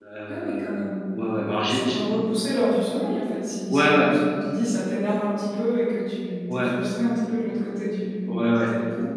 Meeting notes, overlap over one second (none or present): none